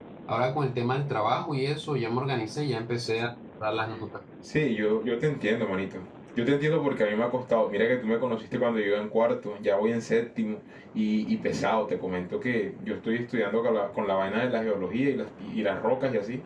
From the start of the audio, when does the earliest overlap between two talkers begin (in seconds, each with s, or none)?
none